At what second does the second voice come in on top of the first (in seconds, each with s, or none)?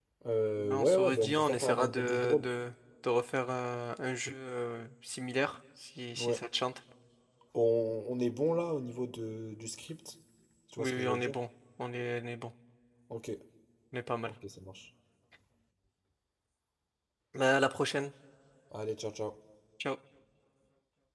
0.6 s